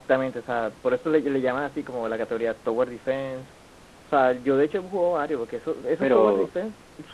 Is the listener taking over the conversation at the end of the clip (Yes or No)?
No